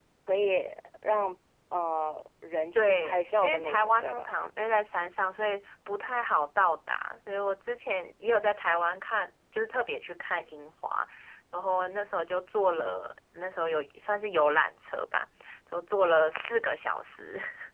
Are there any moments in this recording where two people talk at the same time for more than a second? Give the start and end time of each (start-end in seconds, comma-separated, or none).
2.7-4.3